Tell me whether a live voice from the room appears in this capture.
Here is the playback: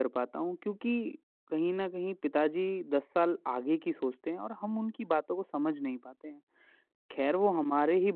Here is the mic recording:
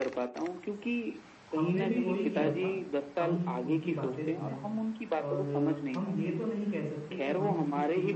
Yes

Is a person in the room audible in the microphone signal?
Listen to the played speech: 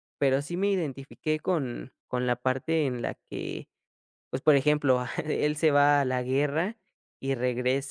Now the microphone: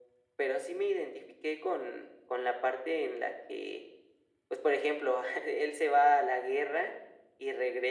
No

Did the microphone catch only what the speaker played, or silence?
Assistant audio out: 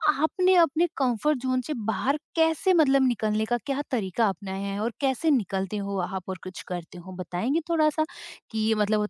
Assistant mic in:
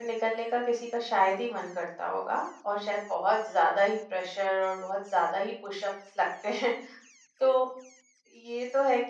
No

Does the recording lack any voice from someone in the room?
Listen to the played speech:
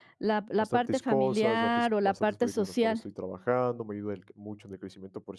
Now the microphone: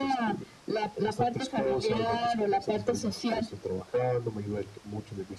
Yes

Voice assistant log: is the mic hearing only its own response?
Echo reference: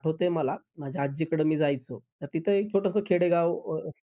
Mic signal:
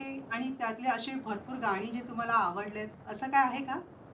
No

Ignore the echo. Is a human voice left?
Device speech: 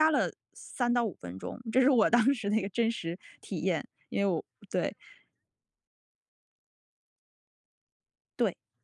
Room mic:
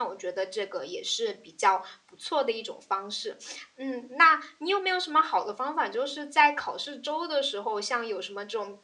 Yes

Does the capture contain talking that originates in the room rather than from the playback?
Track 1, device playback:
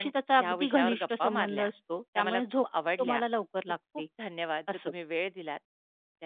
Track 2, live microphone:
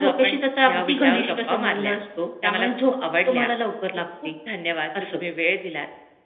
No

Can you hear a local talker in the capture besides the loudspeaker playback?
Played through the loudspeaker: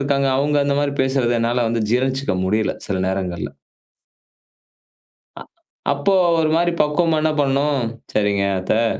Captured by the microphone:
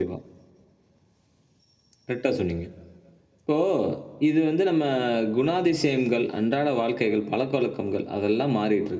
Yes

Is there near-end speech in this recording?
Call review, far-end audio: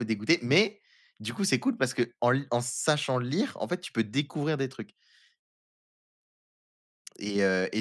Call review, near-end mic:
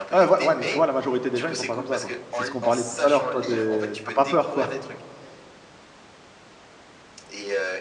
Yes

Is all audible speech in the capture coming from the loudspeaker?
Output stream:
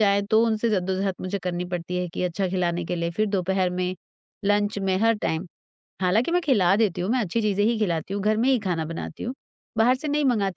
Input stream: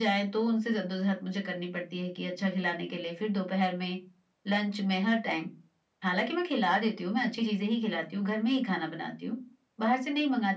Yes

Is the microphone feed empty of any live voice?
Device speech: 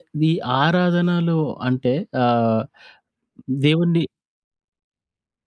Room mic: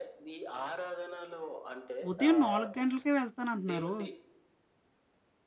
No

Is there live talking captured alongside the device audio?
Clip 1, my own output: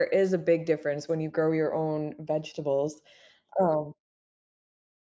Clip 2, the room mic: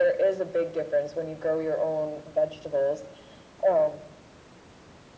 No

